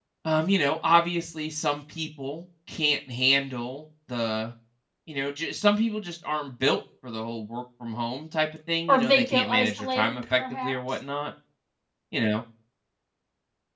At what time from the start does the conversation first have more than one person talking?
8.9 s

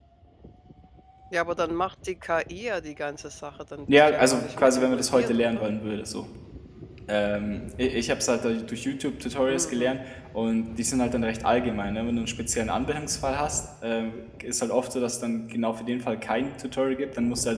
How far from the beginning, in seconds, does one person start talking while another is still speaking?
3.9 s

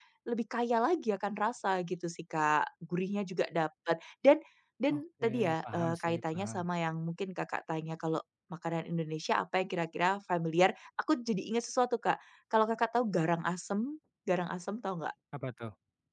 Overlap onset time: 5.0 s

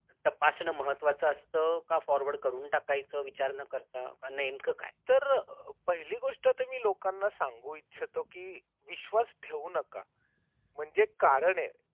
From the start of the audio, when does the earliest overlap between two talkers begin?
none

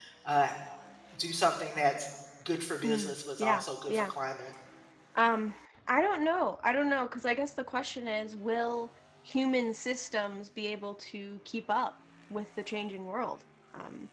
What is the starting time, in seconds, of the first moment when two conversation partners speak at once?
2.8 s

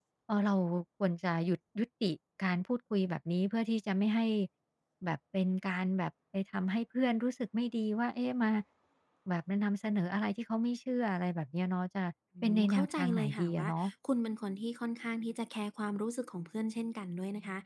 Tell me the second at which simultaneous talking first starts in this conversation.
12.4 s

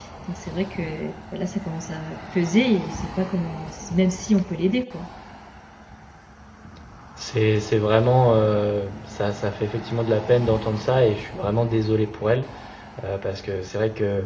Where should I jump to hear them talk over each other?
none

